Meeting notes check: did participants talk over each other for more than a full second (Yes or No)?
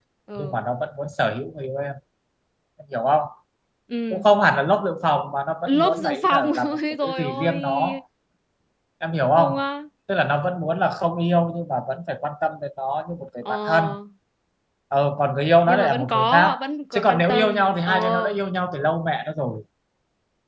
Yes